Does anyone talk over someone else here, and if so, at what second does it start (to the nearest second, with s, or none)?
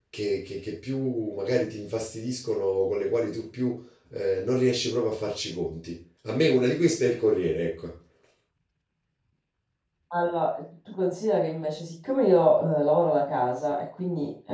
none